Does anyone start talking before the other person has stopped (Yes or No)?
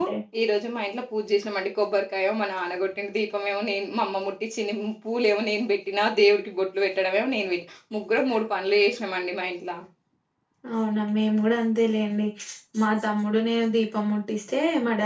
No